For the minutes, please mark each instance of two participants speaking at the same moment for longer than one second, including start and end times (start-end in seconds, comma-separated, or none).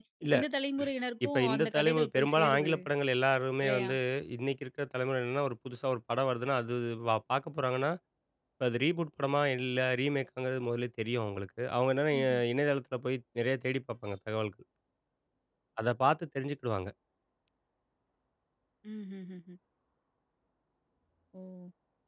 1.2-2.7